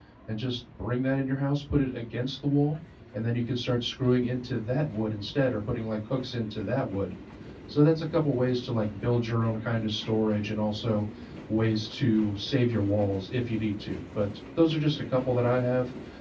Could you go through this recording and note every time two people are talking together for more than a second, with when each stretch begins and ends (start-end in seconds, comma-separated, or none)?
none